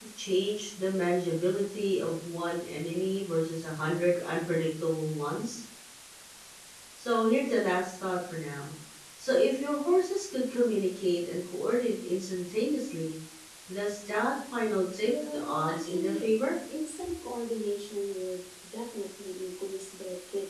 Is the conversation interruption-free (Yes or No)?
No